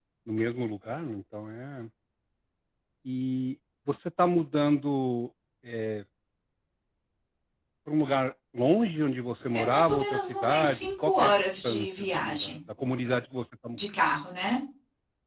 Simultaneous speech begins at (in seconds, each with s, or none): 9.5 s